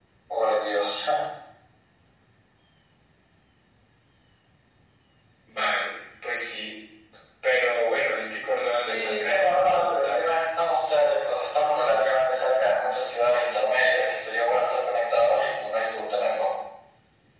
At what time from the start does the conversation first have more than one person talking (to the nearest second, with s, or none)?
9 s